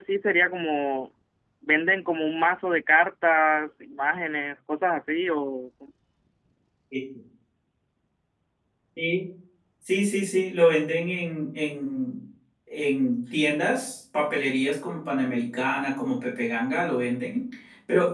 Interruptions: none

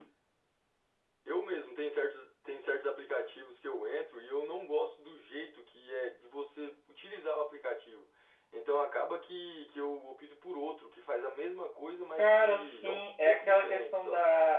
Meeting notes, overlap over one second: present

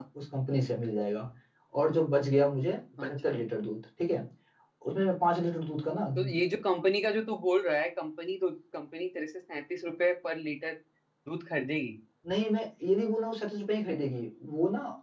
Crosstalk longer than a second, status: none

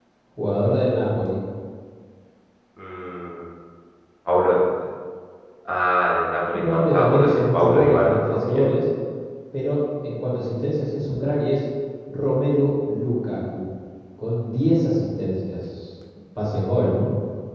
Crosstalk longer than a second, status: present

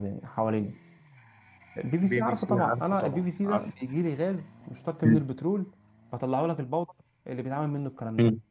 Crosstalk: present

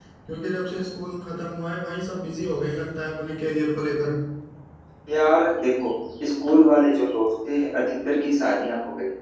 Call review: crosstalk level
none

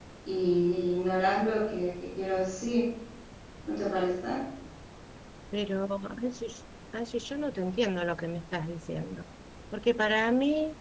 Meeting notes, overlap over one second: none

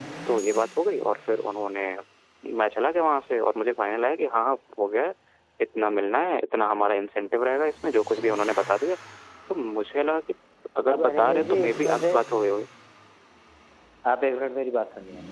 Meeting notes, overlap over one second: present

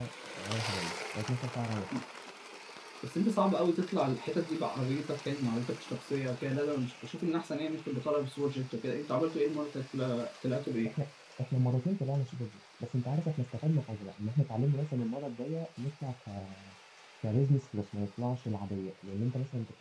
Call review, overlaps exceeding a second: none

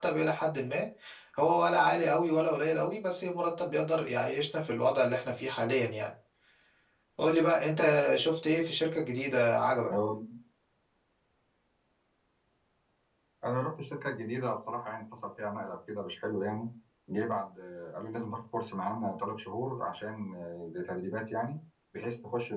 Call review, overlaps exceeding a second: none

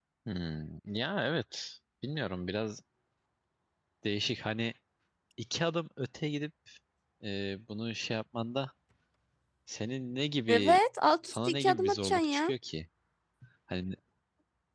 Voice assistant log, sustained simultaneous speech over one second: present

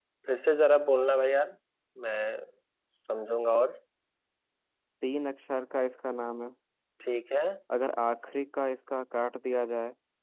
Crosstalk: none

